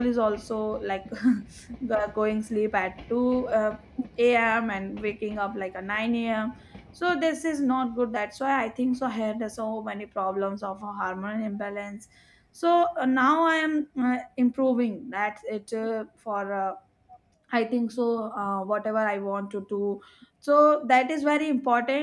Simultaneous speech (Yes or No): No